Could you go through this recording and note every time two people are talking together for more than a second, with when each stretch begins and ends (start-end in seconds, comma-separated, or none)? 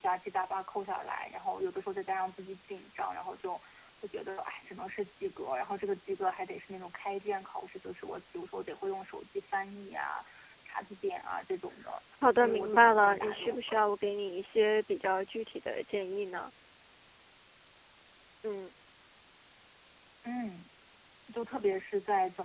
12.4-13.8